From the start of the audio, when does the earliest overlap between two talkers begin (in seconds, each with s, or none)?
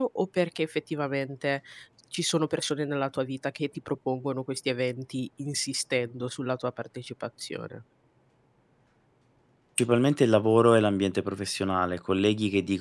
none